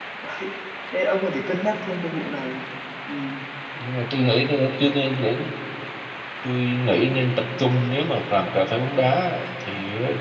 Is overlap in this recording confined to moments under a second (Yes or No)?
Yes